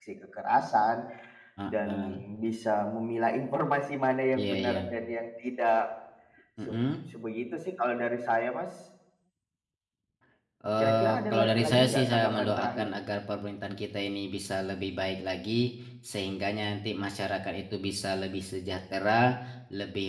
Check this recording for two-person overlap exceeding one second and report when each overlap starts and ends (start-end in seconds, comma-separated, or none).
10.8-12.9